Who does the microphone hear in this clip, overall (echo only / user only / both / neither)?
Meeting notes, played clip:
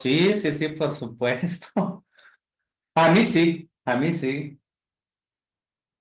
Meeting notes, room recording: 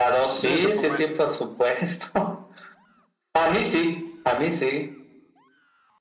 both